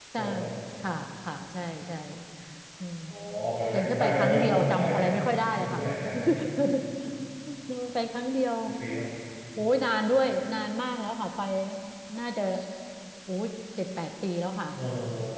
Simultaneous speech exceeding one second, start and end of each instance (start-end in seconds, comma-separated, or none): 3.7-5.0